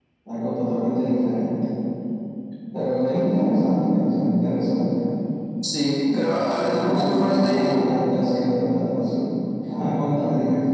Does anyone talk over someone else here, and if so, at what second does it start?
6 s

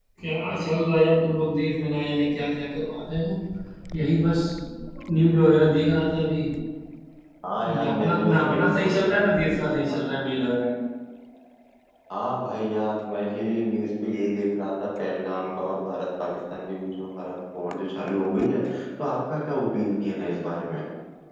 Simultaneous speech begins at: 8 s

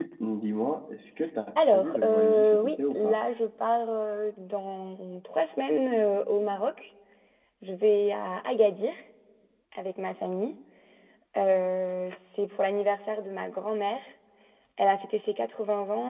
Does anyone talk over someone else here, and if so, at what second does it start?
2 s

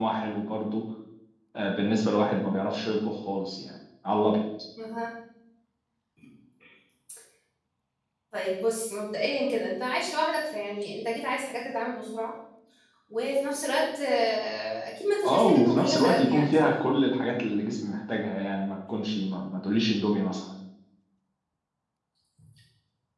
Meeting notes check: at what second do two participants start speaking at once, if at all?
15 s

